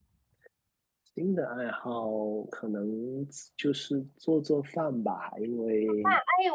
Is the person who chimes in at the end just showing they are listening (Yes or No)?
No